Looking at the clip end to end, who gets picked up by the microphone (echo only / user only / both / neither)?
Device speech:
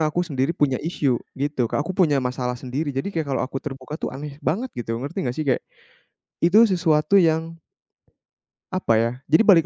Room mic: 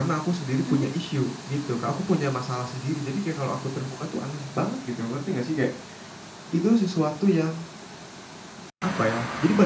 both